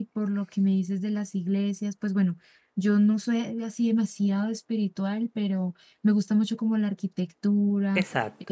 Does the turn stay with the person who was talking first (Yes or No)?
Yes